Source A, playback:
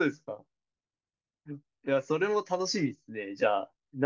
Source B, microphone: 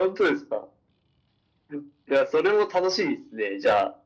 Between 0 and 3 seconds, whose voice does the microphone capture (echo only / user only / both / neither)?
echo only